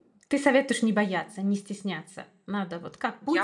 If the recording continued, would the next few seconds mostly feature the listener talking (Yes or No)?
Yes